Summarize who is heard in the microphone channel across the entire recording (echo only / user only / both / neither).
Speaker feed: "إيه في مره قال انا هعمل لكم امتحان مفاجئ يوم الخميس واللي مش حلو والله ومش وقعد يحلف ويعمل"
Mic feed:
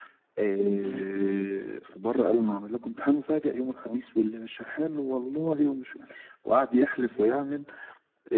both